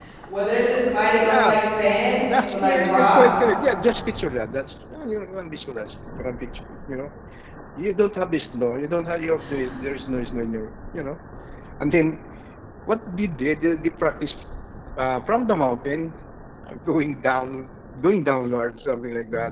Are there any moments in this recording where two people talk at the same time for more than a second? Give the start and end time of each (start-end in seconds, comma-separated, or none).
2.2-3.5